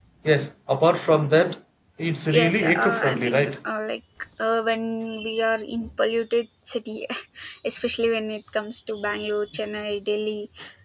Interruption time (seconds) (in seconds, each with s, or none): 2.4 s